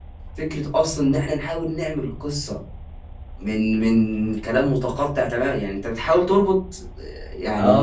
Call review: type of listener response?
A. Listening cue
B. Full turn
B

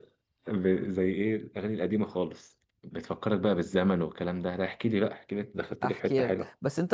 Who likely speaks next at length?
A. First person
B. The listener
B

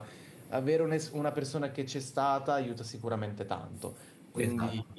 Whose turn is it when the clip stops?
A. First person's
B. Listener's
A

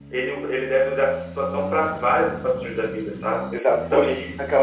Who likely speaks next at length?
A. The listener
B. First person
A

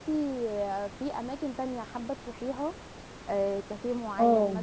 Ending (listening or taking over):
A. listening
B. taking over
A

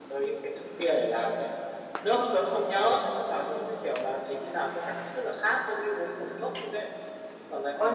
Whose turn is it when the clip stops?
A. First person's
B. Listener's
B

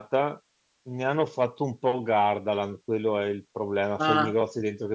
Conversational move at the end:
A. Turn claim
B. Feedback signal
B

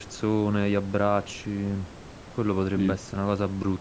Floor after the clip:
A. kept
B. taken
A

